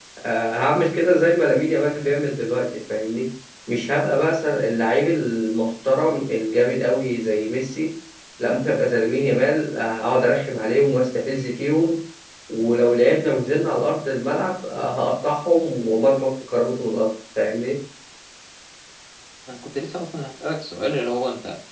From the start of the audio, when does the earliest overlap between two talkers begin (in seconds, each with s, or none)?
none